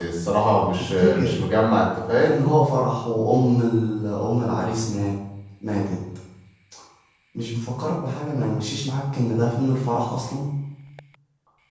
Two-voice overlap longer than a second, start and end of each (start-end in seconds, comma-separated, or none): none